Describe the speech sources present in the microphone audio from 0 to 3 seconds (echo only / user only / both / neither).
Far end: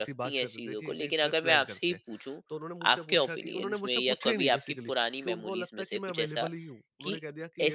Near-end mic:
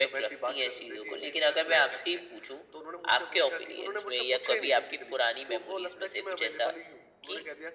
echo only